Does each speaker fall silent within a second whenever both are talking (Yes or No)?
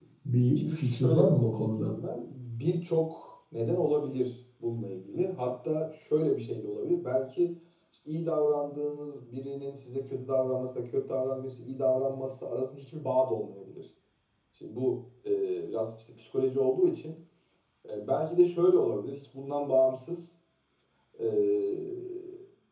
No